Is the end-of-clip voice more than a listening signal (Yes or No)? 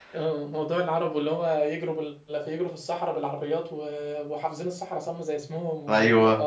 No